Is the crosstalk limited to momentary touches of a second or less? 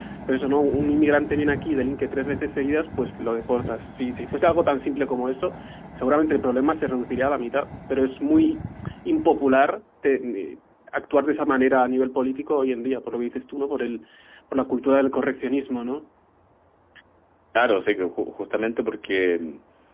Yes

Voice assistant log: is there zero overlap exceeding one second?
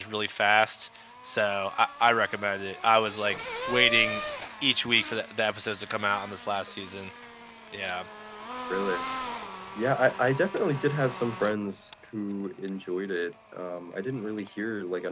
Yes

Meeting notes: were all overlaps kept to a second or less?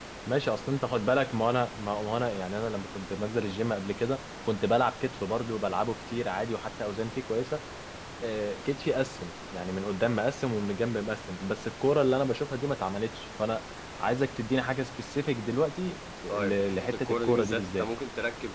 No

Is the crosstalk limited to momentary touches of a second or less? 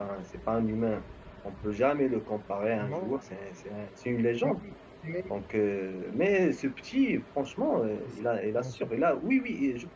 Yes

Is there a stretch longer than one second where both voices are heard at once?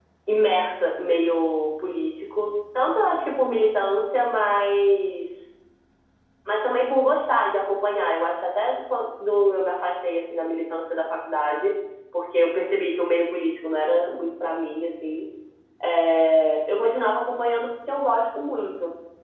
No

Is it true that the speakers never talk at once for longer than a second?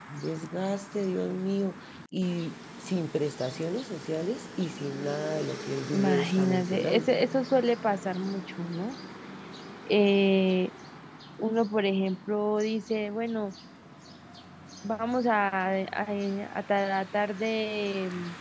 No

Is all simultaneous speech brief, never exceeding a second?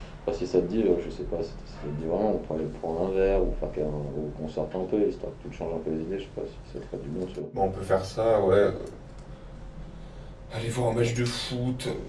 Yes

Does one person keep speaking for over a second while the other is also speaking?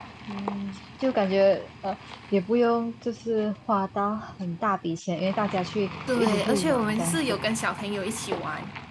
Yes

